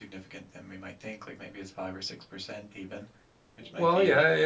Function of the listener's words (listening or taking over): taking over